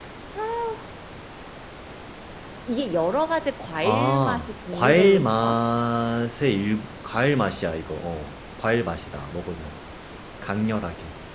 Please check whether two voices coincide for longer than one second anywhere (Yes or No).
Yes